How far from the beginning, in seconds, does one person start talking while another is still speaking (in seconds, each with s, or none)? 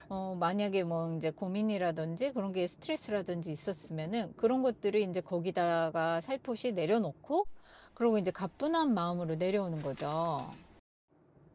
none